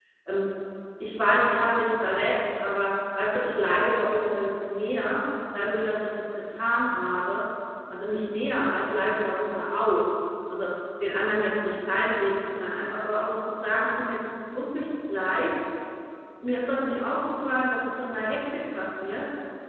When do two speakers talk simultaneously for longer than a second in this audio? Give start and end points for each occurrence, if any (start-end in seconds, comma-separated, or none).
none